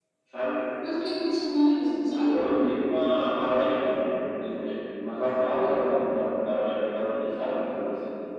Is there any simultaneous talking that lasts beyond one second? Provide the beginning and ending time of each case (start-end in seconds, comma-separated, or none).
none